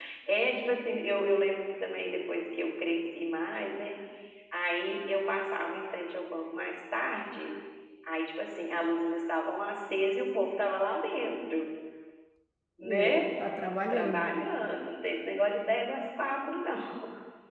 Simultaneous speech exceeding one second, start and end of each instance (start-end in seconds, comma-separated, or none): none